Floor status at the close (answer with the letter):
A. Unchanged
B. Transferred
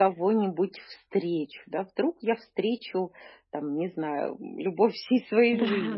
B